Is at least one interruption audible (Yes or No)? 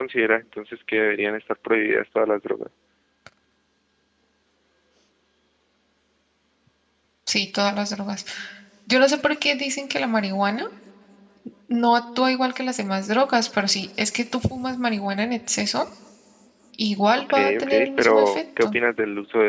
Yes